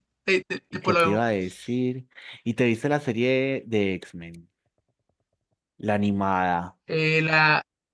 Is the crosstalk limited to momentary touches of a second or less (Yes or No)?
Yes